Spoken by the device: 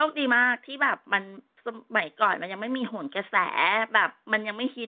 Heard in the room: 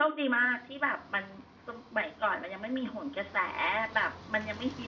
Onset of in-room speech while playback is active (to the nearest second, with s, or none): none